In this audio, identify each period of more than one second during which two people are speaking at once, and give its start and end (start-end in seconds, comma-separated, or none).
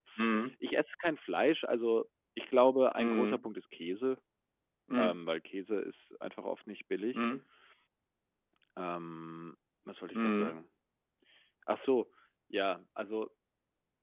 none